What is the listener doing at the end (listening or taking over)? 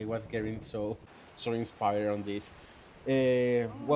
taking over